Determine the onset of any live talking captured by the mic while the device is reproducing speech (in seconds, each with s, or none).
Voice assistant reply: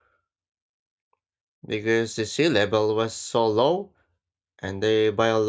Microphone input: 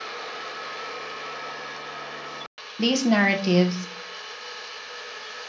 2.8 s